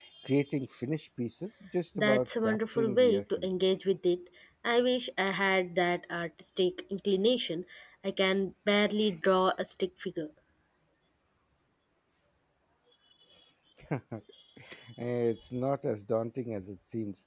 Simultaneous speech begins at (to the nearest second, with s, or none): 2 s